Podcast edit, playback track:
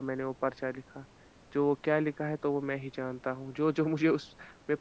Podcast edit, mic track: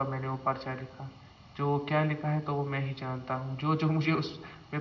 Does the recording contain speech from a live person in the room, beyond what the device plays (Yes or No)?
No